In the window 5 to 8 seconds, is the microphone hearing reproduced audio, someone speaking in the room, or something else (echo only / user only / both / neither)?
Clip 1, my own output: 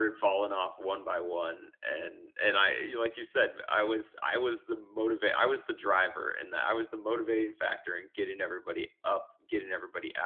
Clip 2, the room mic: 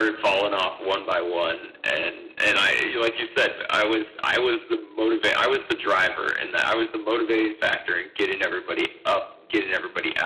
echo only